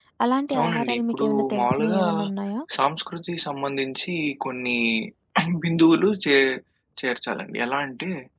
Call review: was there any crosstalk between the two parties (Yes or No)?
Yes